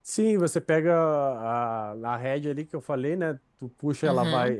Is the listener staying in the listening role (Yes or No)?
Yes